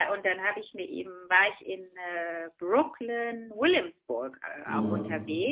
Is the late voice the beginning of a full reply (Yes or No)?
No